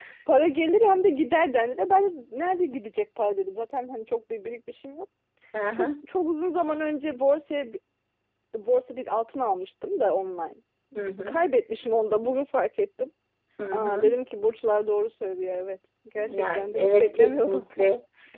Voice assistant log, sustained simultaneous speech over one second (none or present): present